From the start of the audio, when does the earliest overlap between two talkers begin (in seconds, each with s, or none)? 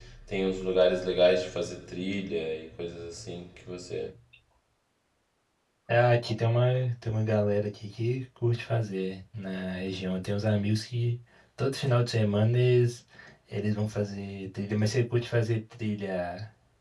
none